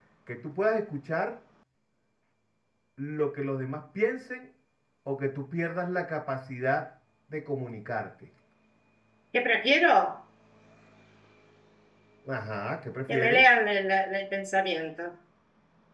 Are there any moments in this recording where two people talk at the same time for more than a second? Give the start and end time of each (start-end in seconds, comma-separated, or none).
none